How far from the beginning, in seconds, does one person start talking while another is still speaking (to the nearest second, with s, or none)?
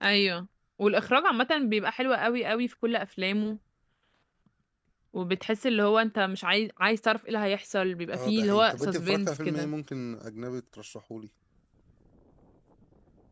8 s